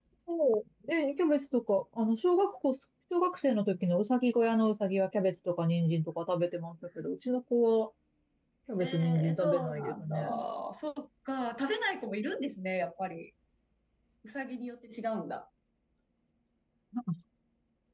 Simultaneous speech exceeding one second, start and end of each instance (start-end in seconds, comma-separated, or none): 8.8-10.1